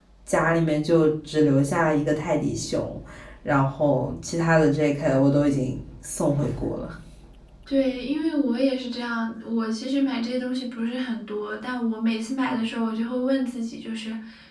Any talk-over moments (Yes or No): No